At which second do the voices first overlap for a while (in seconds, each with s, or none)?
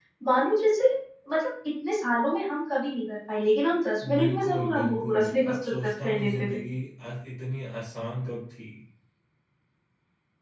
4.0 s